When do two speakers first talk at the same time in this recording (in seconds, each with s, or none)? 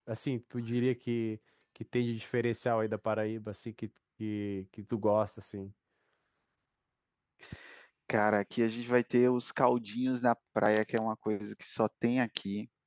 none